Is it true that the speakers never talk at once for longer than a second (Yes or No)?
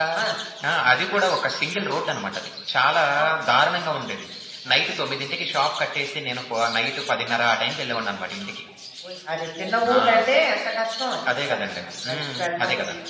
No